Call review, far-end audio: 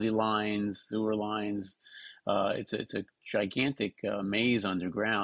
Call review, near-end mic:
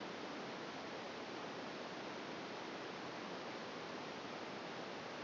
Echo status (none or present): none